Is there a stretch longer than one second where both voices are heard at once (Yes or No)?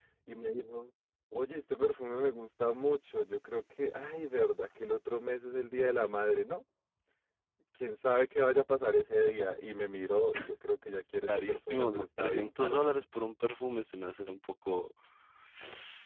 Yes